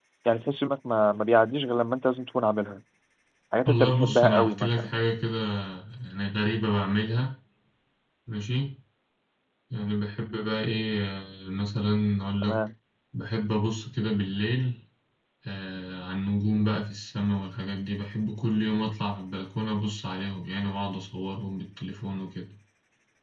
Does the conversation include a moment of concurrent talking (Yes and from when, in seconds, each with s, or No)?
Yes, from 3.6 s